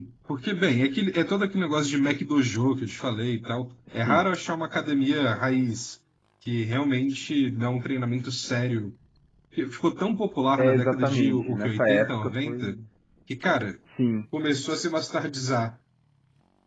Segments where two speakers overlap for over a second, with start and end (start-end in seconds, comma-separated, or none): 10.6-12.8